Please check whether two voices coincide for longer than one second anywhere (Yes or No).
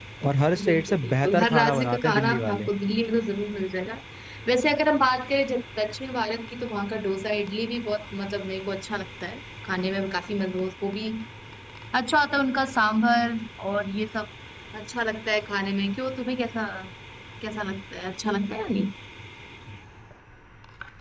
Yes